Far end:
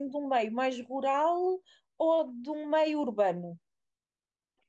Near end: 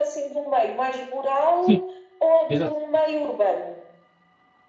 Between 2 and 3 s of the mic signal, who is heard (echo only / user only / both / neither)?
both